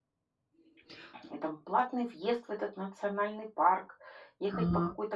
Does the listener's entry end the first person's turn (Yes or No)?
No